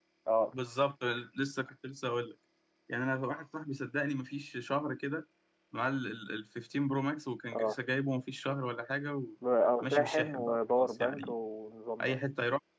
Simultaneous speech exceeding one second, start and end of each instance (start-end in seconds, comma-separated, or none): 9.8-11.3